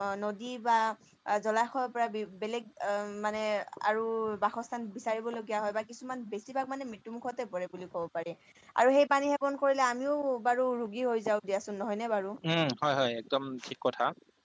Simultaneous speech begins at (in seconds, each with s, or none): none